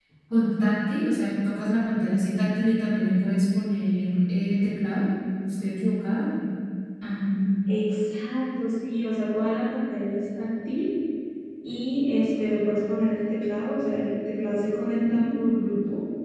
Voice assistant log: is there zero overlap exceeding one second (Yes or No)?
Yes